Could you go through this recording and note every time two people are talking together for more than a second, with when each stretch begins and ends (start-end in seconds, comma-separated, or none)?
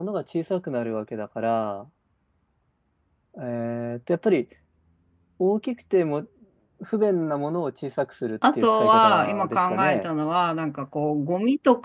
8.5-10.1